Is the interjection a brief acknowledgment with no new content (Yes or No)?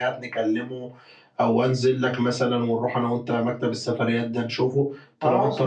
No